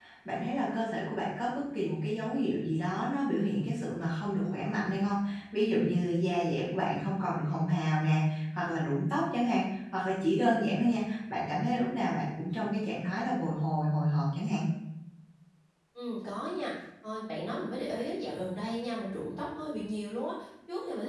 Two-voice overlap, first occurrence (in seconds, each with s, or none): none